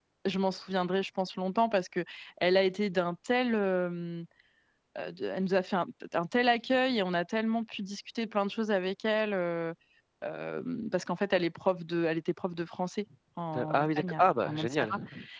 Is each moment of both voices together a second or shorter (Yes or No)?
No